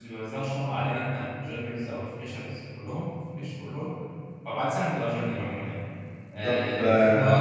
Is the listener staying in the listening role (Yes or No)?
Yes